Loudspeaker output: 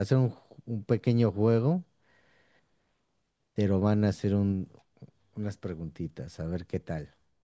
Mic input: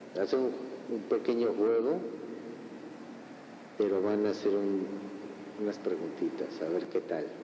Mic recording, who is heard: echo only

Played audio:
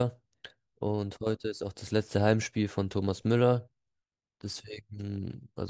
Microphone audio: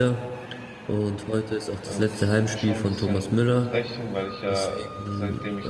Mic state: both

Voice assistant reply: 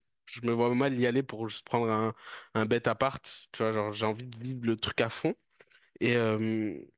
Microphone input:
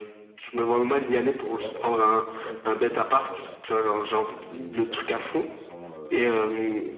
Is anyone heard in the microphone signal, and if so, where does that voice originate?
both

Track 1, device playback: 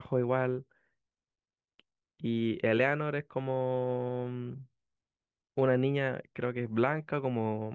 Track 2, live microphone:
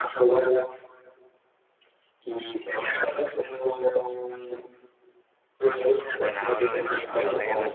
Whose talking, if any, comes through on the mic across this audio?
both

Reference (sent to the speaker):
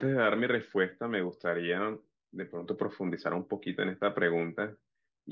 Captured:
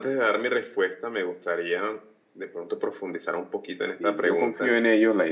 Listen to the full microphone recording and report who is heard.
both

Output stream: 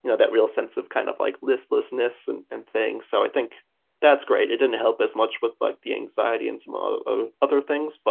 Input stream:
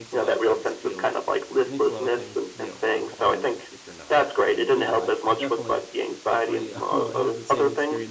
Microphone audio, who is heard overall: both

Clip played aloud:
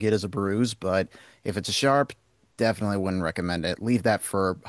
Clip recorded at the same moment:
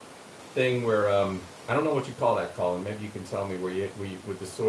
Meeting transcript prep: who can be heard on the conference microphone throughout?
user only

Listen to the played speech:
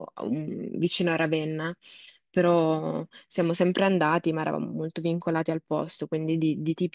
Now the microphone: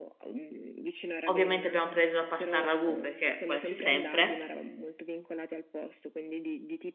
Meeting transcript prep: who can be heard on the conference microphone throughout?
both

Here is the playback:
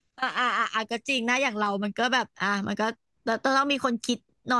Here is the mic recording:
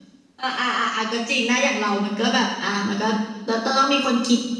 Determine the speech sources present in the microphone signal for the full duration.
echo only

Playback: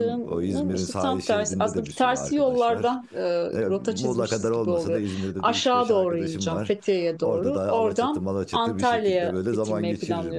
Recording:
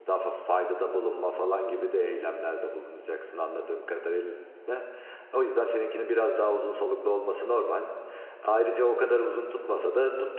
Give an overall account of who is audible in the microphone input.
user only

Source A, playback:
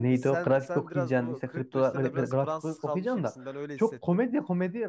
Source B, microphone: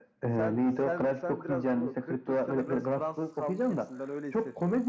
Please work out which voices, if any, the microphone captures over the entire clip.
echo only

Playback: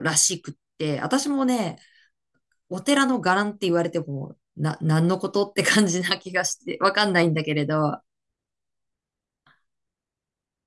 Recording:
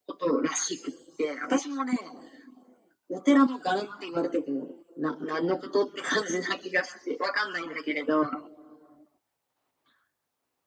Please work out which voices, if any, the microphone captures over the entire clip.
echo only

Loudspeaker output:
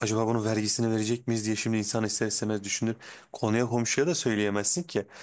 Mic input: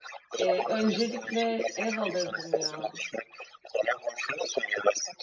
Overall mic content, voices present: both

